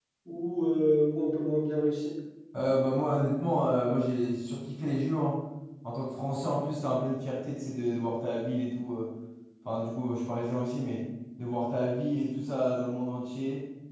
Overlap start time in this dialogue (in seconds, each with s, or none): none